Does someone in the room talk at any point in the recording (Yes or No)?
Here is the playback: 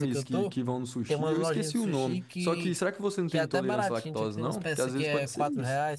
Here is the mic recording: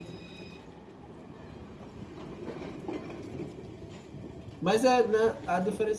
Yes